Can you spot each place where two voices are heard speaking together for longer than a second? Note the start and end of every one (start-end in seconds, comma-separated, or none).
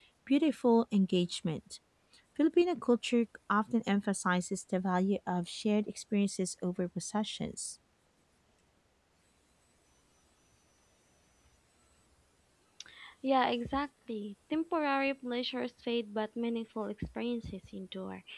none